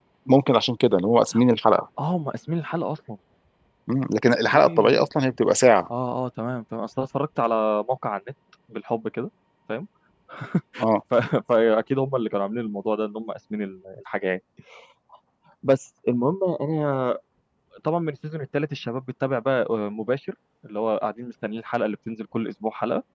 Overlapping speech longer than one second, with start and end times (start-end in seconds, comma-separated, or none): none